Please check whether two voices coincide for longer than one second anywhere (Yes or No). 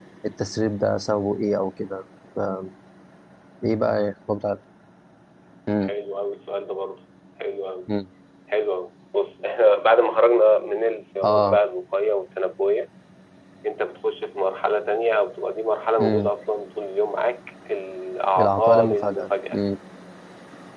Yes